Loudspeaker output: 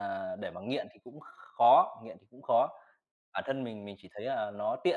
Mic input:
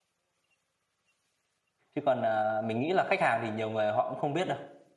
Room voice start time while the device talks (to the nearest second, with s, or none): 2 s